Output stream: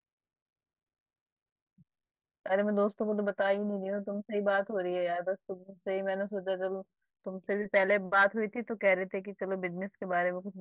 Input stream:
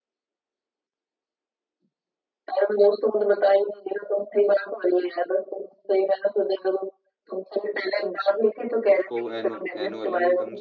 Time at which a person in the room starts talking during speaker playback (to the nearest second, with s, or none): 9 s